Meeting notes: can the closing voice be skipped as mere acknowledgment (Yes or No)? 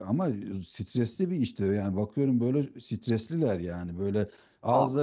Yes